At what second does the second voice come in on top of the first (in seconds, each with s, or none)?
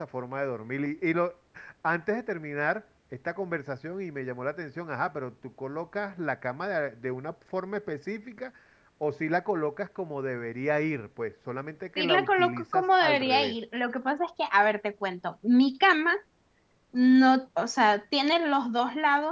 12.0 s